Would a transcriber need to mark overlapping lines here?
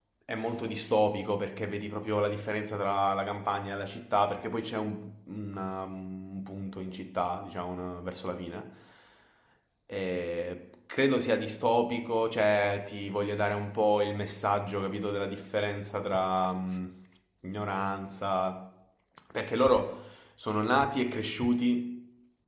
No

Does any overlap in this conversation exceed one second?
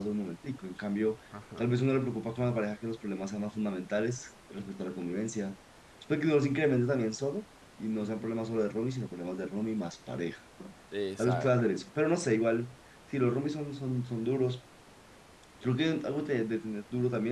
No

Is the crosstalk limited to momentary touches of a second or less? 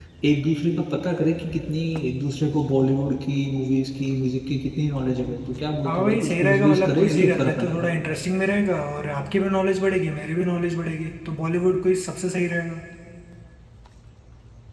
No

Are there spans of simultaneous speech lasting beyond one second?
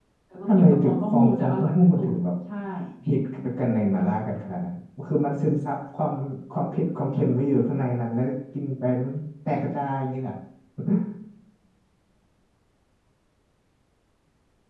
Yes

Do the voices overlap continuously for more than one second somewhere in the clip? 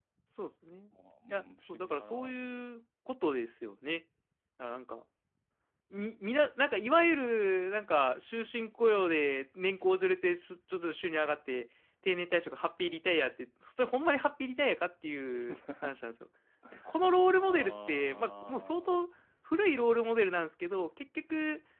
Yes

